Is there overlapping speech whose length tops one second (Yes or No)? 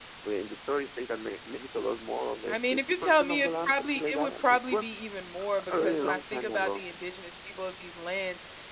Yes